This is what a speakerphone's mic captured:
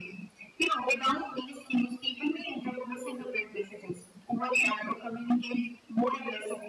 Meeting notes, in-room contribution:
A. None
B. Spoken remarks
A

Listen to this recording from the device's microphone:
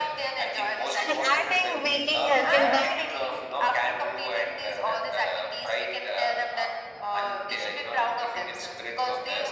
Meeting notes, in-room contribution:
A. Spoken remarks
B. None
A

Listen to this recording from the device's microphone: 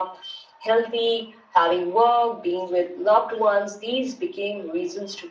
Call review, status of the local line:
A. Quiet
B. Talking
A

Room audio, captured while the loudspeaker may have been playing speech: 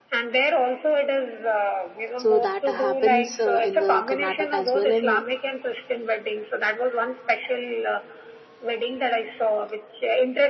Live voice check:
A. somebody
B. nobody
A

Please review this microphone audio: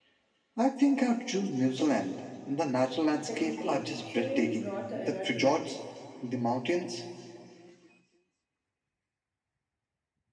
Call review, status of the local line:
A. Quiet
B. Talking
B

